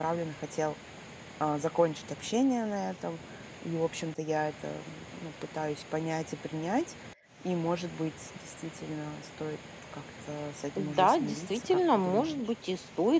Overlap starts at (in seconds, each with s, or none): 10.8 s